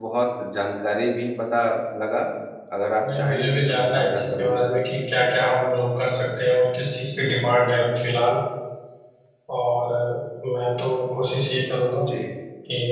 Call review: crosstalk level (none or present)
present